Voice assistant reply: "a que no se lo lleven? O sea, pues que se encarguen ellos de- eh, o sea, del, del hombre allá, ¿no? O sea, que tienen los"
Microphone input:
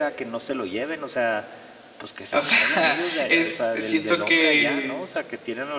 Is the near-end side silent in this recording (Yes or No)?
No